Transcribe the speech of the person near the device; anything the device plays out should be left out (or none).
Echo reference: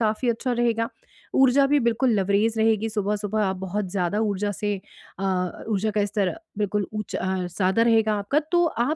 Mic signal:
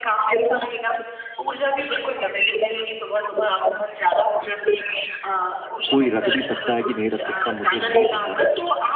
कोई रख भी सकता है कि नहीं रख सकता मुझे नहीं पता।